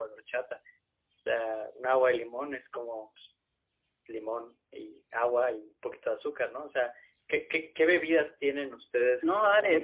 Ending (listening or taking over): taking over